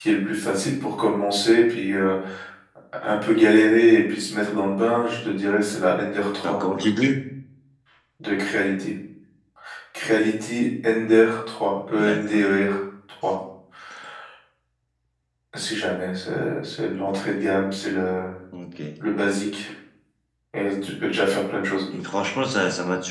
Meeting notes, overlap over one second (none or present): none